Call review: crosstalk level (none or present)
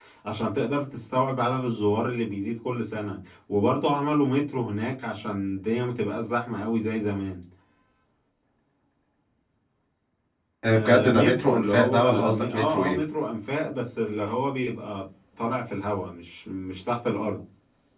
present